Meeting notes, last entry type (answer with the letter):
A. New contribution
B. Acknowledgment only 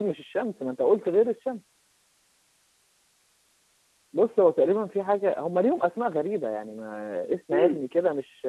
B